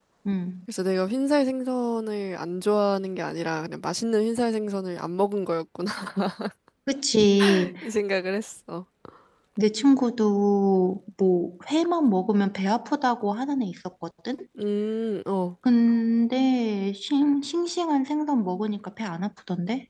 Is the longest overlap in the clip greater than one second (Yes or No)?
No